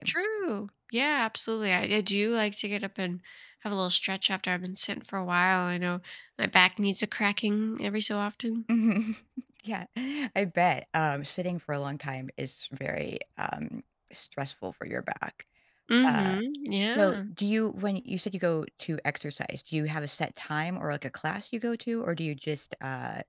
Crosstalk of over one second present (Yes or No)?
No